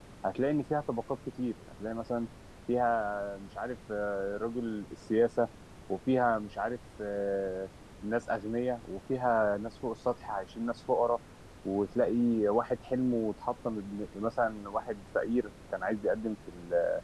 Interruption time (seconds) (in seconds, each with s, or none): none